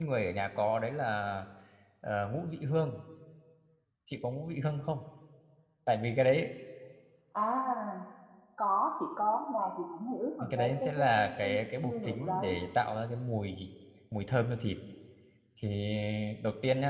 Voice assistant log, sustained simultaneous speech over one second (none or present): present